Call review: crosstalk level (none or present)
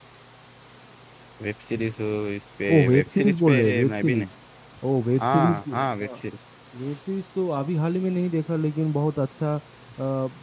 present